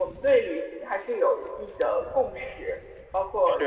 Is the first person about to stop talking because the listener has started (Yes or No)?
No